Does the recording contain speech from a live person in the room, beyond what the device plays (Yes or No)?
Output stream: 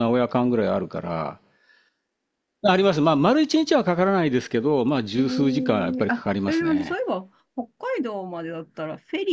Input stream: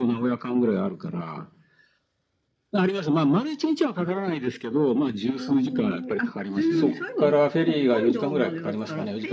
Yes